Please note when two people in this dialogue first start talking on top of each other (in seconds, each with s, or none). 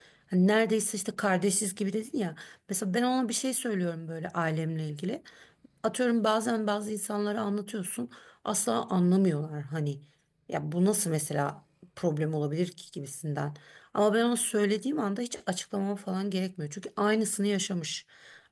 none